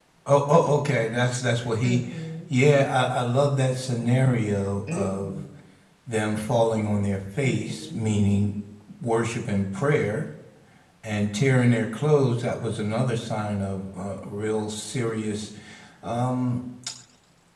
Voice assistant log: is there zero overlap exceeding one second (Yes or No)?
Yes